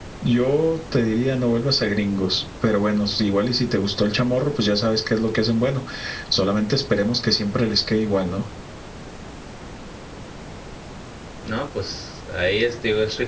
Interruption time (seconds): none

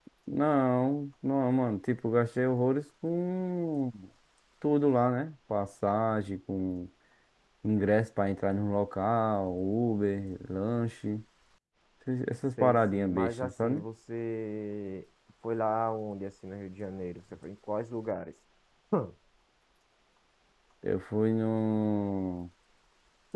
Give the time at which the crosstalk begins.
12.6 s

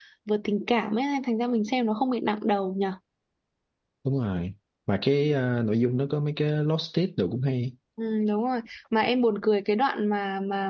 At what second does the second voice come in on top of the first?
none

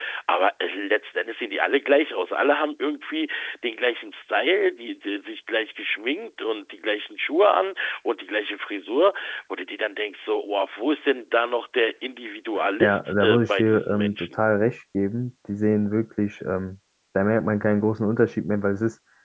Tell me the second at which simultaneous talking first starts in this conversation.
12.6 s

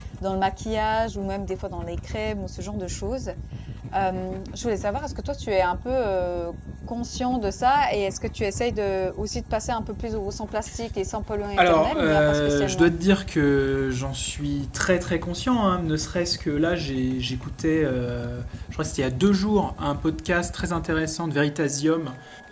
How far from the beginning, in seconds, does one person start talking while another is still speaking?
11.6 s

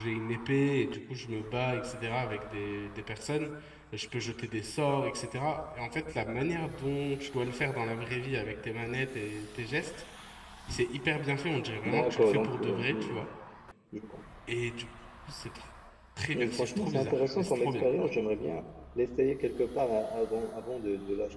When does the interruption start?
11.8 s

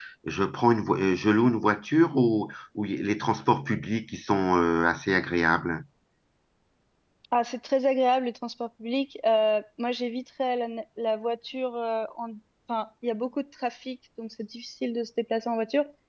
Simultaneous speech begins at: none

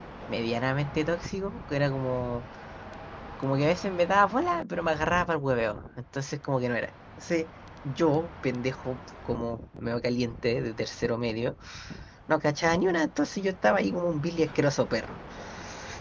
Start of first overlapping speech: none

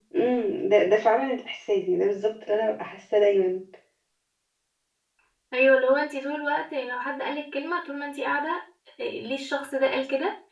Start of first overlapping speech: none

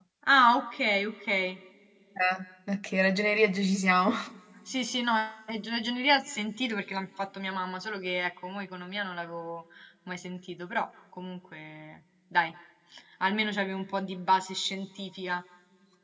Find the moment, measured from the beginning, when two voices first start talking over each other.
none

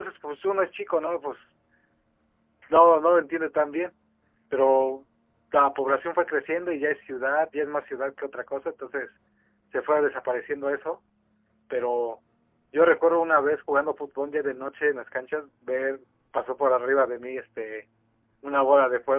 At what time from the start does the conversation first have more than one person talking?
none

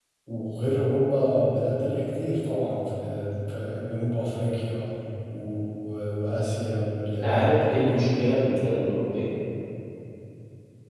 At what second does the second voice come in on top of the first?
7.0 s

